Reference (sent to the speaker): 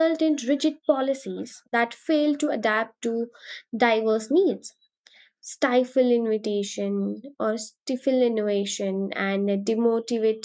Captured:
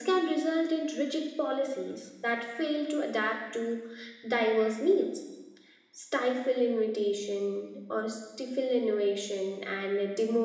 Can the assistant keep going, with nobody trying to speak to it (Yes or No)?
Yes